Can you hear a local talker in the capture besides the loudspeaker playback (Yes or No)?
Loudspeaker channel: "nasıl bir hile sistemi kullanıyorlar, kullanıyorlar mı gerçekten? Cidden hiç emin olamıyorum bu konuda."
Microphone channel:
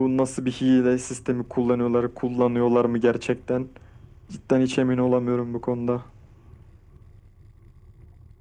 No